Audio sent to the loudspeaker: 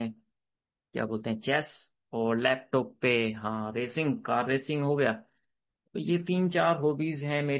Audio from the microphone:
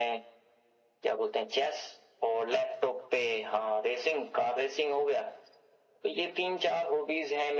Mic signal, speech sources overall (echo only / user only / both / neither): echo only